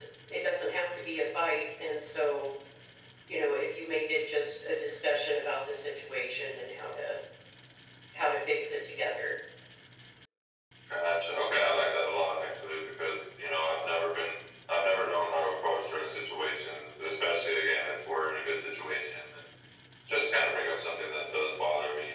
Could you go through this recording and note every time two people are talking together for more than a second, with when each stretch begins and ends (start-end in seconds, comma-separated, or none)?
none